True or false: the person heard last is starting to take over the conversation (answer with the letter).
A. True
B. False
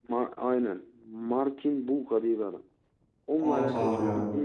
B